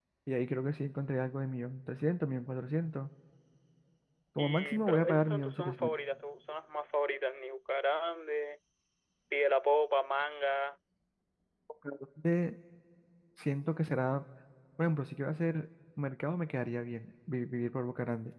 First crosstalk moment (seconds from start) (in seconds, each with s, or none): 4.4 s